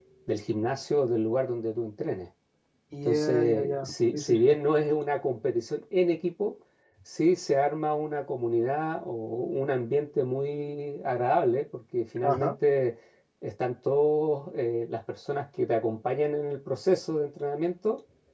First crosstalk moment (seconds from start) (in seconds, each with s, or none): 3.0 s